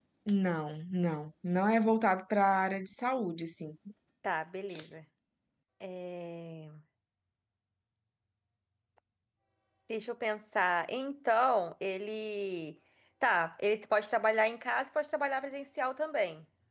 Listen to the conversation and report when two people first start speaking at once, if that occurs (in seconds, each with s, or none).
none